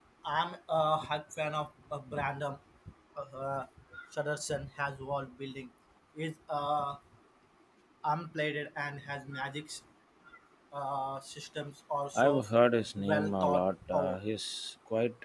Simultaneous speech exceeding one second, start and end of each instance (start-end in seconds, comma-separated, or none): 13.0-14.2